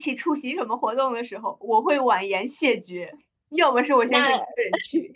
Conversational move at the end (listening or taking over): listening